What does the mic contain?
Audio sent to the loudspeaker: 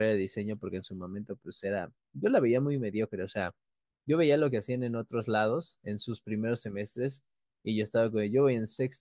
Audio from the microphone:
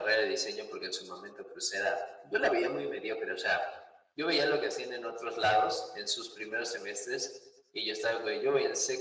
echo only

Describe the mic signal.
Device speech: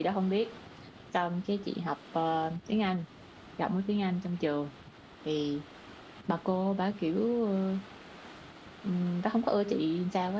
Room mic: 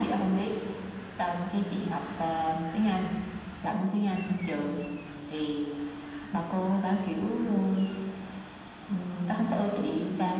echo only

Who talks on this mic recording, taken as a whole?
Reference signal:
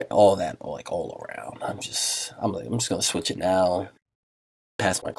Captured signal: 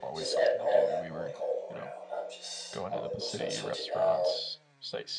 both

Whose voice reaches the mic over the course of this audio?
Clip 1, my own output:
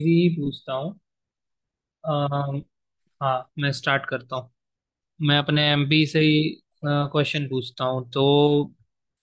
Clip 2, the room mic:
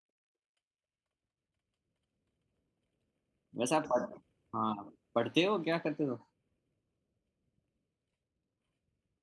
user only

